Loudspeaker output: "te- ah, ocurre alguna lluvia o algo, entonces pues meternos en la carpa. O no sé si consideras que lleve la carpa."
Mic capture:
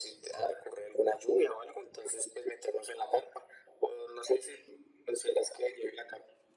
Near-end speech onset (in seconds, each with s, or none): none